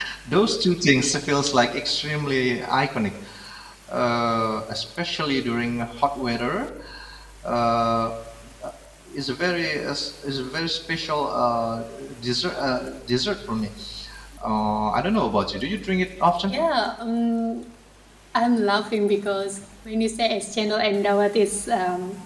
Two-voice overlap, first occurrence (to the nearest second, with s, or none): none